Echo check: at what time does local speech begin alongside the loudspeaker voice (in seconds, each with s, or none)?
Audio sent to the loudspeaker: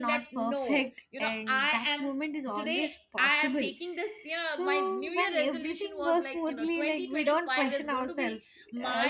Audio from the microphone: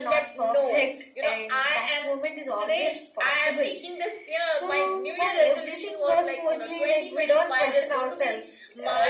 none